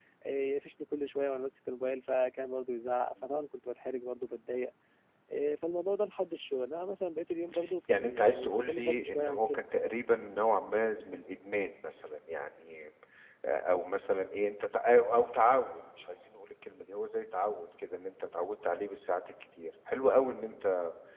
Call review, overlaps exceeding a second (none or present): present